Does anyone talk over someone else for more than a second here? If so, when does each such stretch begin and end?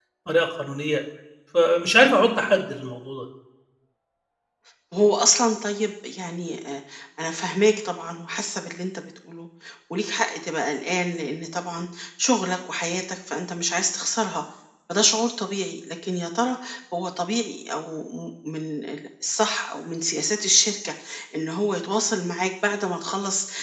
none

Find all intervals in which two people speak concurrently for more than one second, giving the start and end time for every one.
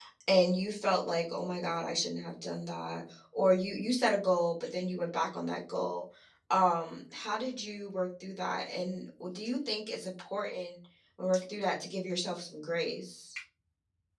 none

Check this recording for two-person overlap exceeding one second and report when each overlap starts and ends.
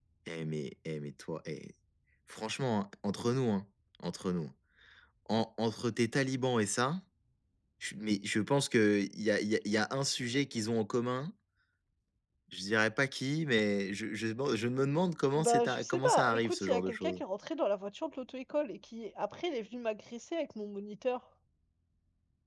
15.4-17.2

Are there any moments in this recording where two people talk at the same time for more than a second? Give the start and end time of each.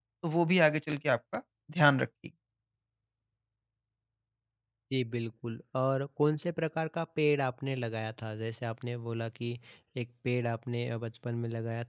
none

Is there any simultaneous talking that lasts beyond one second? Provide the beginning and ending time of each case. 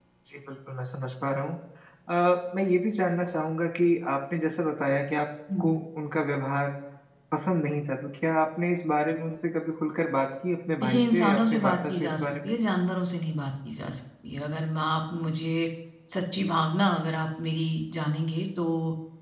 10.8-12.3

